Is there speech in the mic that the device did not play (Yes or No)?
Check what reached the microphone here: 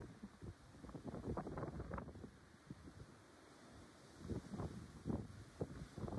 No